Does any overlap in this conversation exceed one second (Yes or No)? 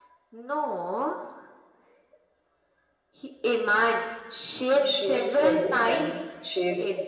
Yes